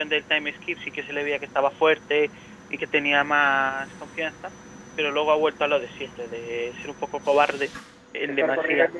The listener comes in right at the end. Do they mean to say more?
Yes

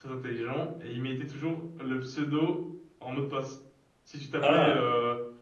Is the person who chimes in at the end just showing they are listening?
Yes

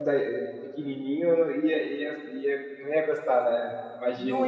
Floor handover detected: Yes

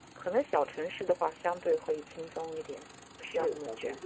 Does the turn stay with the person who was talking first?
No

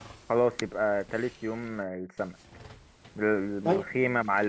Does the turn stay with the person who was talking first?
Yes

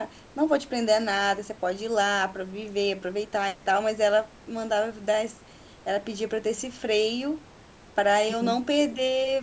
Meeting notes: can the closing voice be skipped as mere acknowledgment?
Yes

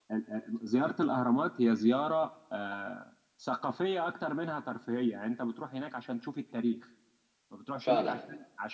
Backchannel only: Yes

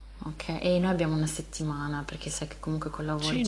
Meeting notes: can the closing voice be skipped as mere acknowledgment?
No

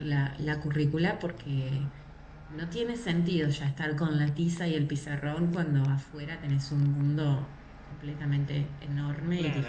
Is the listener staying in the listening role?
No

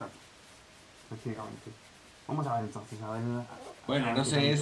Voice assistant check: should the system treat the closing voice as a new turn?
Yes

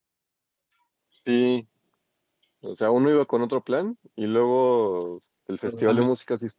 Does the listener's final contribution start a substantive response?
No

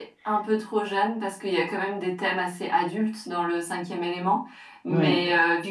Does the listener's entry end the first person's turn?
No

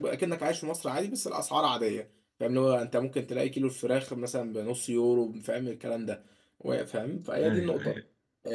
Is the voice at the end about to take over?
No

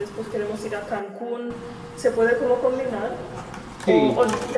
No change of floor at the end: Yes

